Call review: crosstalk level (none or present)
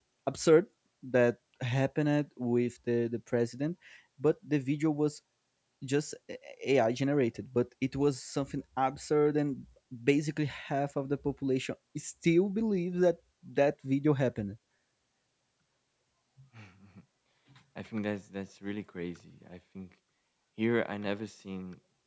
none